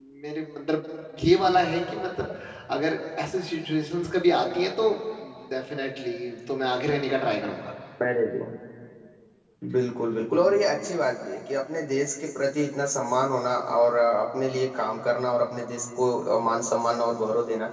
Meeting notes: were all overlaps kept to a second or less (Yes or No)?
Yes